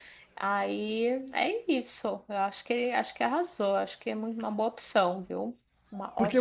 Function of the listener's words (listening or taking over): taking over